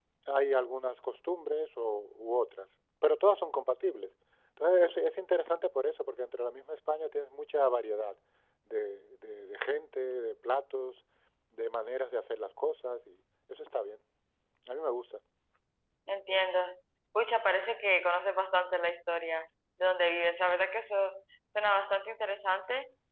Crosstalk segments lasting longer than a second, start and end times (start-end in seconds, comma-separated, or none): none